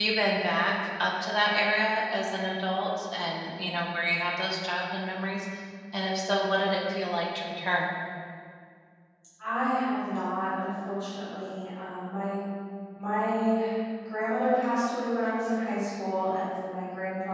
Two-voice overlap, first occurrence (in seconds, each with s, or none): none